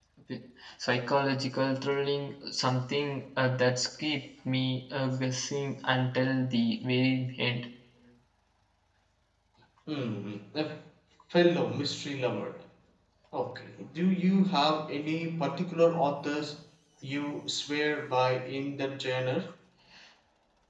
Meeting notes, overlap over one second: none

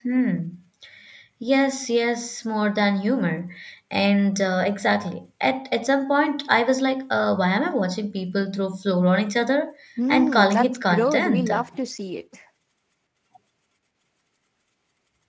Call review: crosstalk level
present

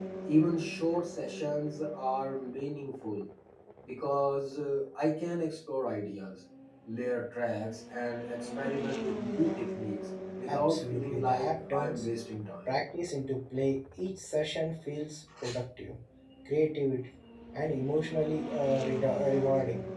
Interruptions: present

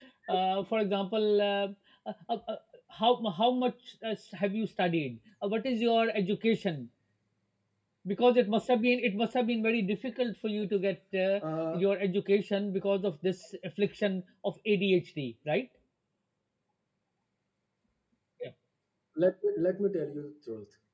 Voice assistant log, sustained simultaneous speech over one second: none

